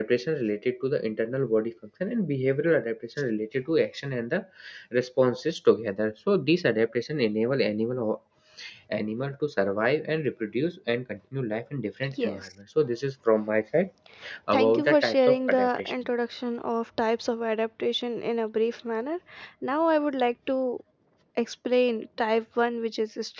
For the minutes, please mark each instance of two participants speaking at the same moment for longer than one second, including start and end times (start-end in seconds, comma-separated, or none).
14.5-15.9